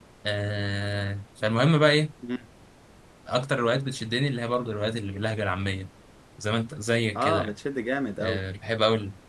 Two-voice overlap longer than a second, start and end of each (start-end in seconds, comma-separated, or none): none